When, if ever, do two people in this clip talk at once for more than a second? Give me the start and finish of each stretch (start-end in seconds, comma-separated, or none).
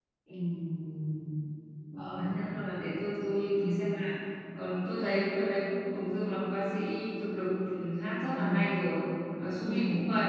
none